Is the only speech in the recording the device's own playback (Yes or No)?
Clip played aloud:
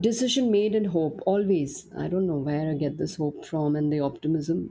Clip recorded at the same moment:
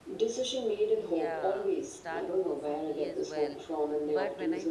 No